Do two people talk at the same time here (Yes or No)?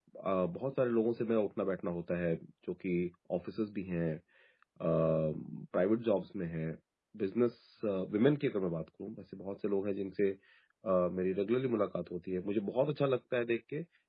No